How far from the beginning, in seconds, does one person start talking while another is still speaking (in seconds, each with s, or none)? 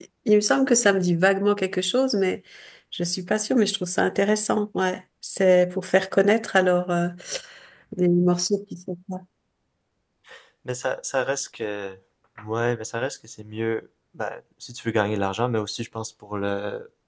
none